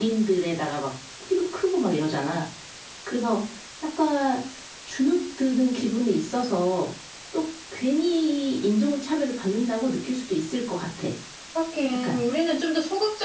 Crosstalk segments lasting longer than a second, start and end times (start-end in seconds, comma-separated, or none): none